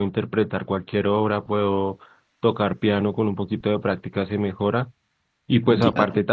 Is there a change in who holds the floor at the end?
No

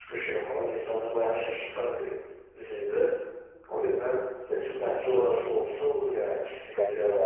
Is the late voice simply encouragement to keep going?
No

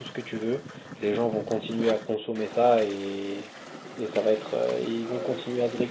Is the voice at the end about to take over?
Yes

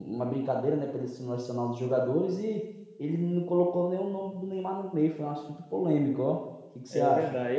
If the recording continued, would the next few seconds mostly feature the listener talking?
Yes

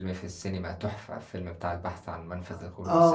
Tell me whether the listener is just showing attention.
No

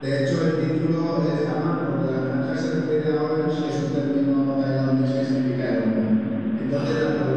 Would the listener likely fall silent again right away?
Yes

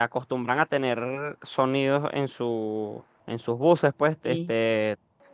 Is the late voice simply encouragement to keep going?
Yes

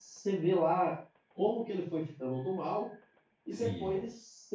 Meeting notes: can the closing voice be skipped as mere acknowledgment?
Yes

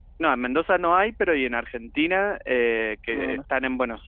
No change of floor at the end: Yes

